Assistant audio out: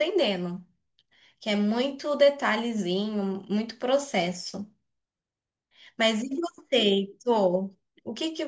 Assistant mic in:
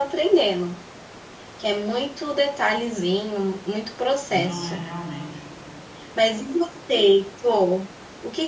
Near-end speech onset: 4.3 s

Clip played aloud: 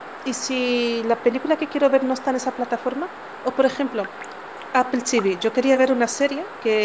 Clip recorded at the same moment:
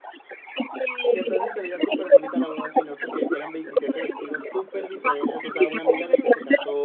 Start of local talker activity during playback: 1.1 s

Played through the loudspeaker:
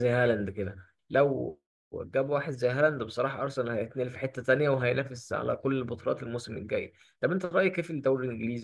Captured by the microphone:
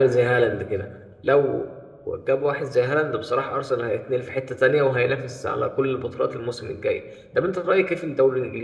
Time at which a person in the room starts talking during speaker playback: none

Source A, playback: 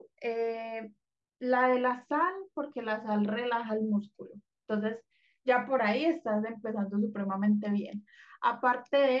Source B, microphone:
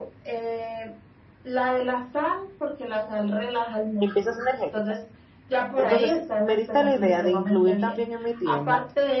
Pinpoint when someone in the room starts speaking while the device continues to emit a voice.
4.0 s

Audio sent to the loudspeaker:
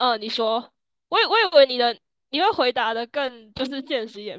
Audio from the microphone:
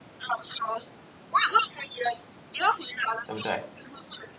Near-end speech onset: 3.3 s

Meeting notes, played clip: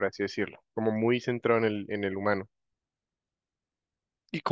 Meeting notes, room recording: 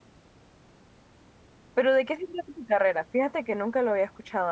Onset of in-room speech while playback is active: 1.7 s

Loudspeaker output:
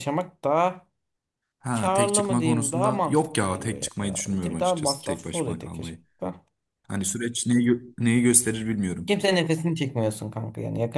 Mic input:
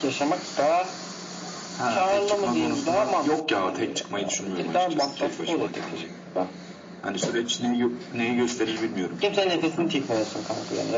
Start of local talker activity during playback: none

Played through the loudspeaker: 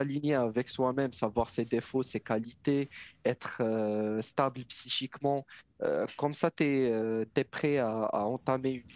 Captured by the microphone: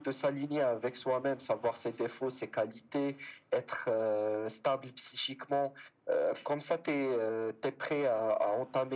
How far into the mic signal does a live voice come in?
none

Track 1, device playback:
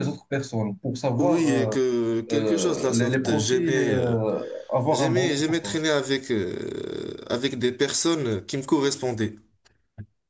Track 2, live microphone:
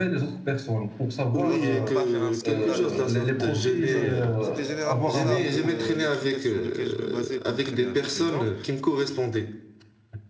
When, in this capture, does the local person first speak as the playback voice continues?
1.4 s

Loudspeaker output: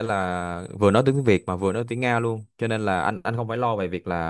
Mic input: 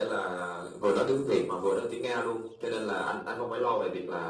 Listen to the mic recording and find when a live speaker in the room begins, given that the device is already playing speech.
none

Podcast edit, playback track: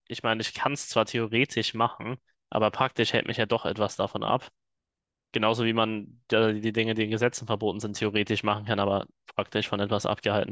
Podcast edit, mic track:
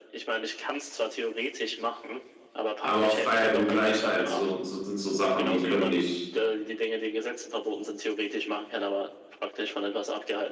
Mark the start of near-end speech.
2.8 s

